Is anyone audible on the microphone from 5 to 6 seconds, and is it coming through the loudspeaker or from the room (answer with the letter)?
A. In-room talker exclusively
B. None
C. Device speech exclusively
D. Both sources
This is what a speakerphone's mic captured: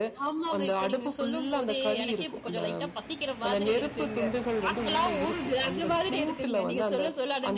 C